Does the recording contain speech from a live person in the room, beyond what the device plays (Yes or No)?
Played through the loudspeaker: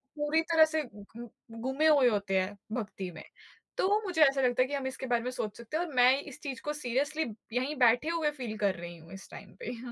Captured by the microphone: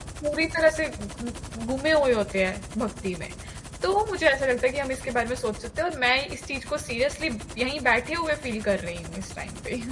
No